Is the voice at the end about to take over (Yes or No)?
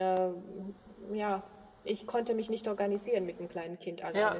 Yes